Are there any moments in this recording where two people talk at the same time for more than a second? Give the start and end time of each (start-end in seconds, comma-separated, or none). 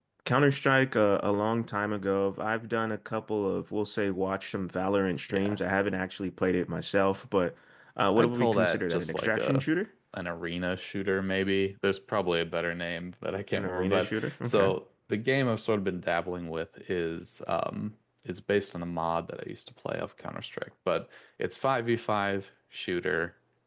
8.2-9.6, 13.5-14.7